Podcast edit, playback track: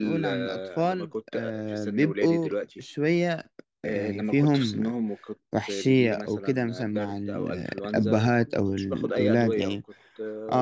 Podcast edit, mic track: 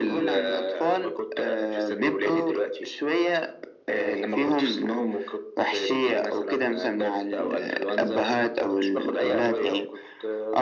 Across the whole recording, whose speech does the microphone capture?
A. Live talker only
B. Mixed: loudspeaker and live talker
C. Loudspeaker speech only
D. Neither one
C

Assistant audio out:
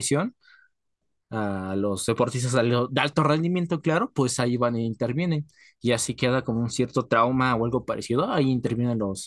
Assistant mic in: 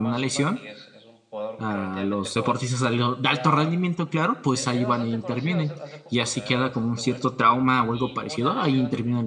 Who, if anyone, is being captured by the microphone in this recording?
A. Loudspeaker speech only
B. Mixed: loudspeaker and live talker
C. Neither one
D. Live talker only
B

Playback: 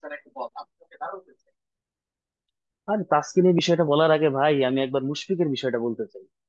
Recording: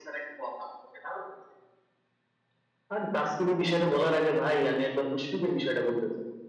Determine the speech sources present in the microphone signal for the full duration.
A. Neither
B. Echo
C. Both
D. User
B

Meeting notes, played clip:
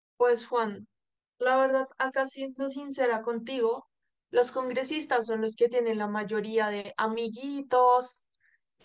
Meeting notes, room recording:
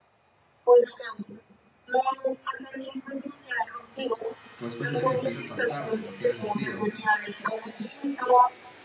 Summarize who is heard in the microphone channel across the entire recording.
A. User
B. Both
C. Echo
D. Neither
B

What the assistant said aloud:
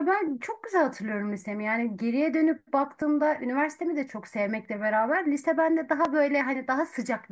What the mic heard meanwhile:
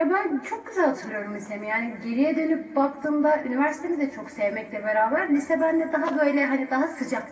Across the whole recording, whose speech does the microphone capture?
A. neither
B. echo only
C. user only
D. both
B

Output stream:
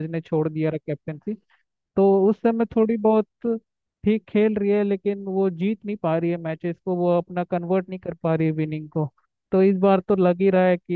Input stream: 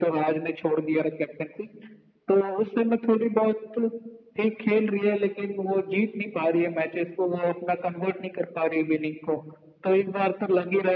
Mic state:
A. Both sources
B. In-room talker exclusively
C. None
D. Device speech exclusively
D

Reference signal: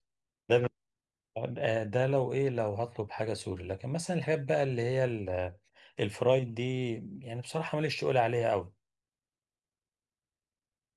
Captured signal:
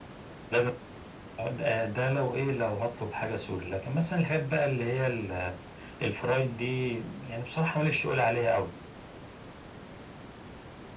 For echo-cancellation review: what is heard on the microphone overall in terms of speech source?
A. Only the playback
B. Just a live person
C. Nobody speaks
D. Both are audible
A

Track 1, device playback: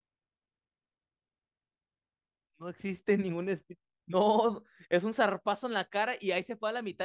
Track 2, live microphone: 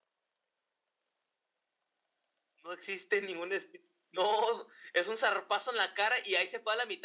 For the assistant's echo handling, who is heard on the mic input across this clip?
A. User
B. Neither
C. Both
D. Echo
D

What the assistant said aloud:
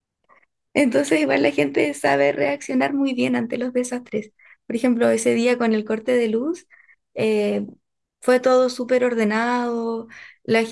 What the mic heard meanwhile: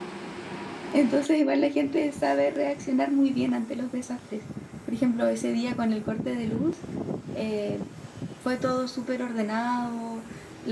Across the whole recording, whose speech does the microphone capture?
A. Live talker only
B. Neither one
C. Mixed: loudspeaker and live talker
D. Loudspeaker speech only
D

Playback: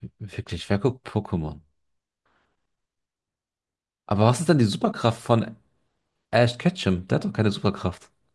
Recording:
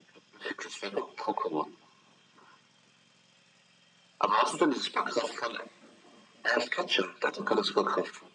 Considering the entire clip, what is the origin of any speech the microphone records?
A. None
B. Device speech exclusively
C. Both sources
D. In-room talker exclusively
B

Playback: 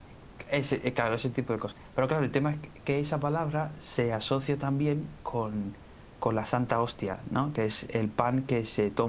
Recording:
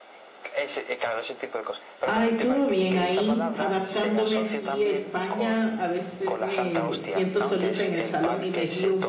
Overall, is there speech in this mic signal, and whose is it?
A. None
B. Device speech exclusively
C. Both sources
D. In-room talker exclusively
C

